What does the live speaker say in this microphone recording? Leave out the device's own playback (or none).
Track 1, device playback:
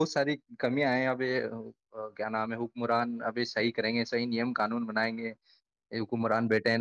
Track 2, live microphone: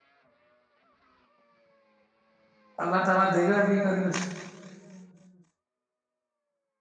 اللہ کیسے؟ دے گا بھی کے کھ